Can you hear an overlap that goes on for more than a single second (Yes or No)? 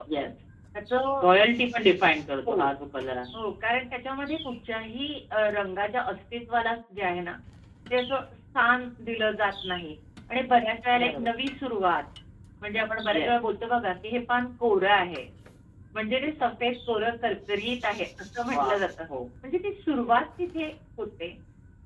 No